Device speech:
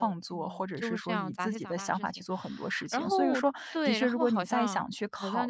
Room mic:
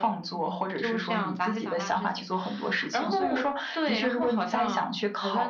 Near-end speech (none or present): none